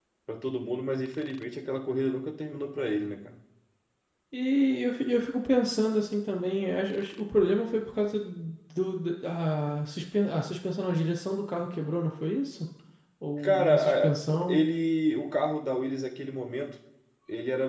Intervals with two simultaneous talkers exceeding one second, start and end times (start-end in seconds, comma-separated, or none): 13.4-14.6